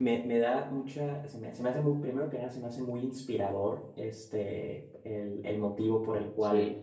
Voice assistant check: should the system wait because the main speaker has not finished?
Yes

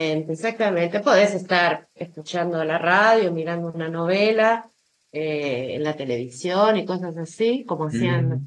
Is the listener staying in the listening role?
No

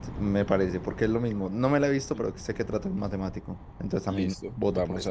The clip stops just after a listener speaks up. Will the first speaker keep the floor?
No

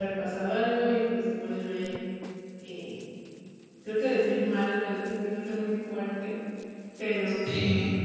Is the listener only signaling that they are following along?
Yes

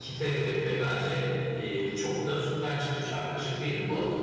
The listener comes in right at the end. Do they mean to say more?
Yes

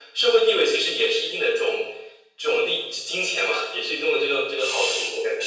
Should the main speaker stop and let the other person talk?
Yes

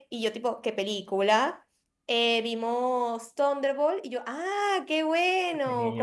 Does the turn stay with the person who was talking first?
Yes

